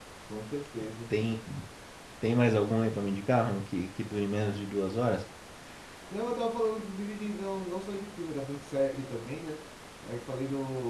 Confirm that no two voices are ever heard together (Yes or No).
Yes